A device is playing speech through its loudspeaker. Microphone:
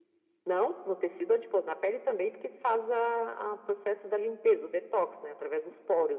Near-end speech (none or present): none